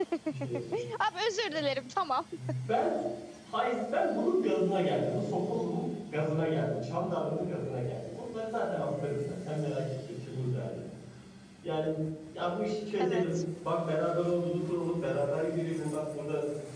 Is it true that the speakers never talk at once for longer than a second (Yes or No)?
Yes